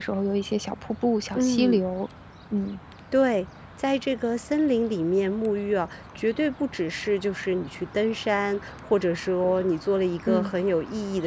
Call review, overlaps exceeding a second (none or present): none